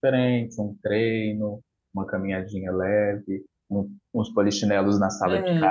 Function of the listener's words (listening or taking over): listening